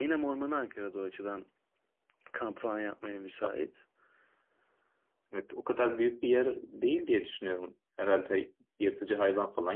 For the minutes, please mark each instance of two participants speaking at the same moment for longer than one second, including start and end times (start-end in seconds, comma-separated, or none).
none